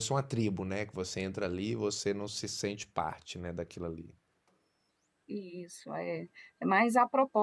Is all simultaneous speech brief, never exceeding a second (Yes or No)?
Yes